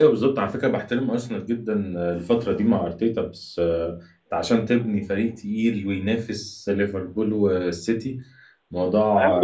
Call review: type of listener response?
listening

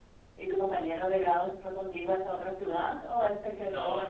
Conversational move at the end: listening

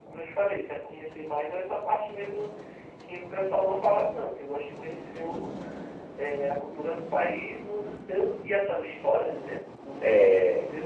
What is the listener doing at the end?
listening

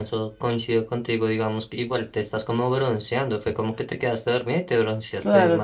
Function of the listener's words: taking over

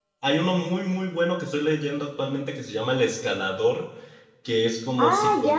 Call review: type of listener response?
taking over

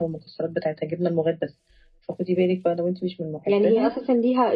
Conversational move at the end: taking over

